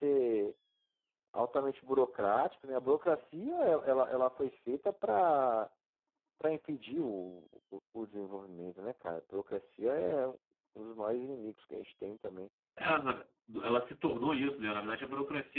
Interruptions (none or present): none